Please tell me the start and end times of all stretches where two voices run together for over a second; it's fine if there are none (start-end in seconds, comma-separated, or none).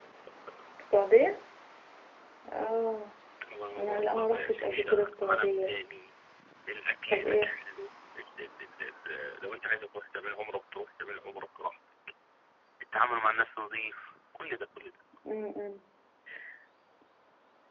3.8-5.7